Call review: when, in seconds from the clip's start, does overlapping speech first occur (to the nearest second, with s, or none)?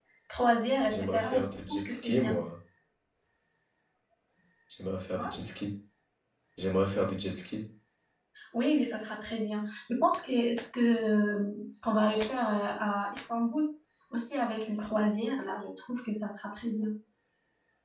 1 s